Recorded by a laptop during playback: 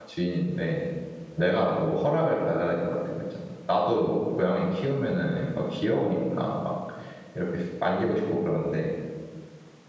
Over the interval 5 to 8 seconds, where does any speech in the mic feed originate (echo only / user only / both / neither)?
user only